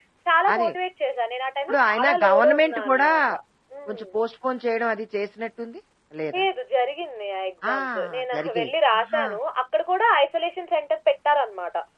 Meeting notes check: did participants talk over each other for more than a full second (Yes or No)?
Yes